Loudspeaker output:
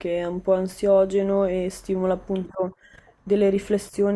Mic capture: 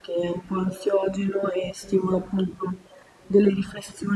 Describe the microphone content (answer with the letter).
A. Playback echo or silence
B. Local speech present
A